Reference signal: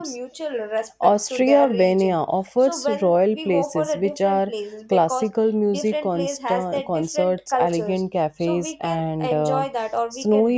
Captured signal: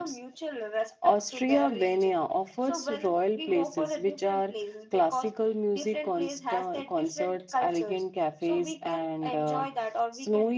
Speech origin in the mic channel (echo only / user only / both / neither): echo only